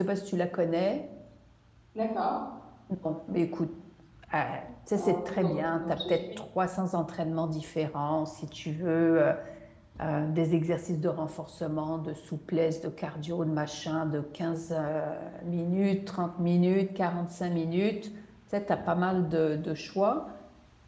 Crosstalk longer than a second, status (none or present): present